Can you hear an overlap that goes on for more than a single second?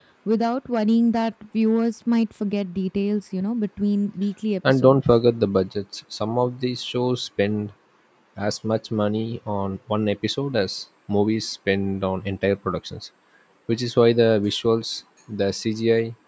No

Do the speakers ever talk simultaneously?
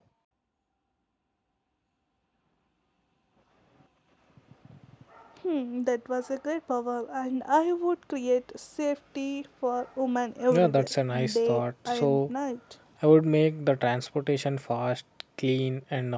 Yes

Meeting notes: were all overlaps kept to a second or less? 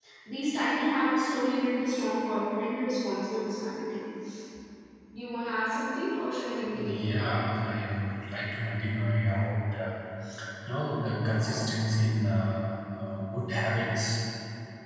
Yes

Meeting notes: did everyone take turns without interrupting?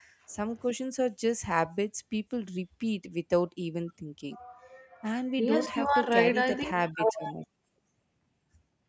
No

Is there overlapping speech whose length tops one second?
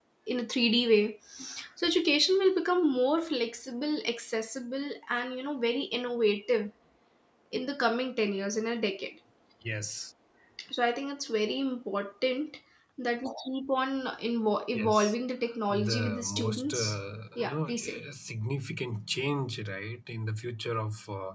Yes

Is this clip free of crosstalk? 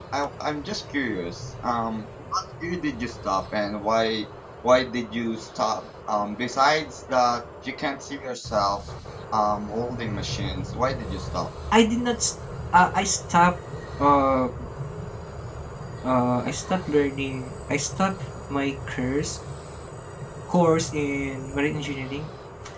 Yes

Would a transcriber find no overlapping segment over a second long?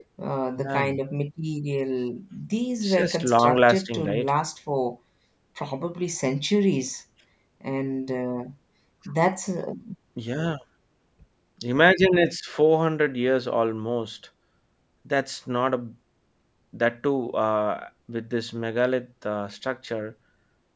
No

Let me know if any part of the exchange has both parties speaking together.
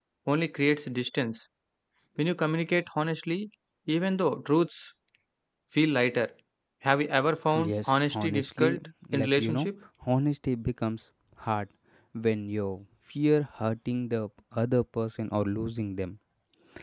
Yes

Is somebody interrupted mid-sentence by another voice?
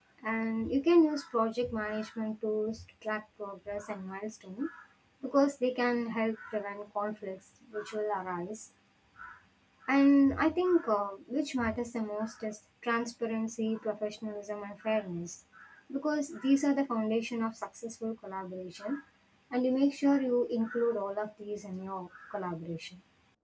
No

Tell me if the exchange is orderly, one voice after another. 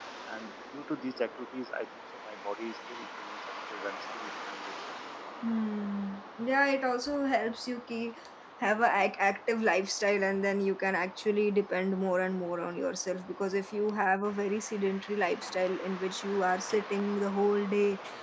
Yes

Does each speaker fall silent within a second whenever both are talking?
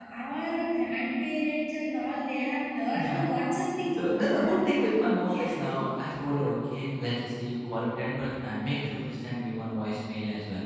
Yes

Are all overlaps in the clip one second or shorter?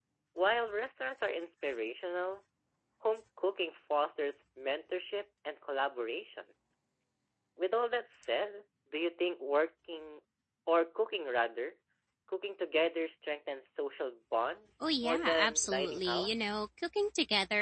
No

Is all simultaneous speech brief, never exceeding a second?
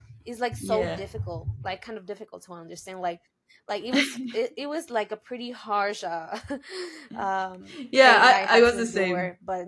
No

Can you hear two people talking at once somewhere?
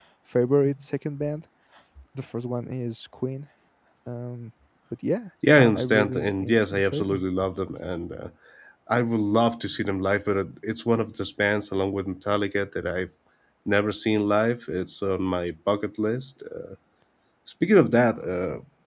Yes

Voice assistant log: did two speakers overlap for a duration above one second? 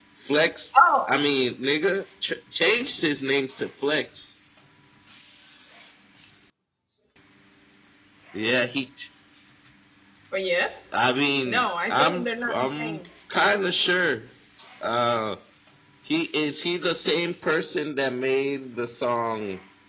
Yes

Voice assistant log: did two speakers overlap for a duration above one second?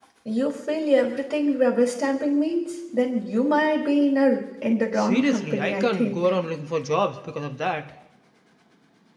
Yes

